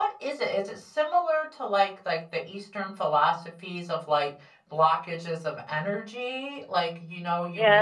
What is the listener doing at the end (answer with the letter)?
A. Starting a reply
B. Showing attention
A